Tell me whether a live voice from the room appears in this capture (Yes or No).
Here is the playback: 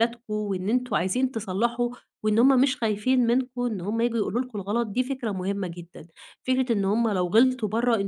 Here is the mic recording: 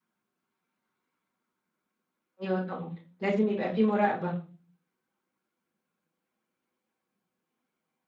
Yes